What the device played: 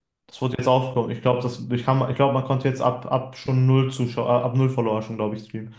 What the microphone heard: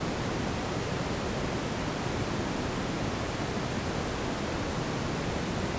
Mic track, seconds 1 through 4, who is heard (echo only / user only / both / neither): neither